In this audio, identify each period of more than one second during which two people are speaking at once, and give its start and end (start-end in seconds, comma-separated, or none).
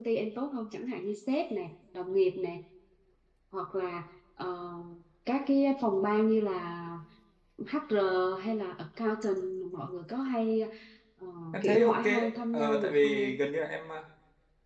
11.5-13.3